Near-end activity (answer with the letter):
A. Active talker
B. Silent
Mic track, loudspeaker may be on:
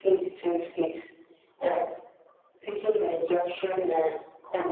B